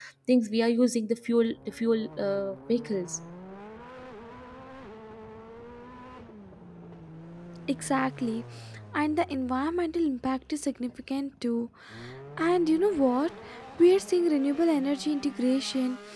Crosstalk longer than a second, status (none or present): none